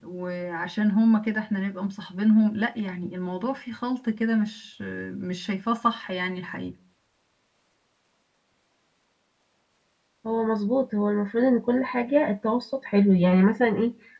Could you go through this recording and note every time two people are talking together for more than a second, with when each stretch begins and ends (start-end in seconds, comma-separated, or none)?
none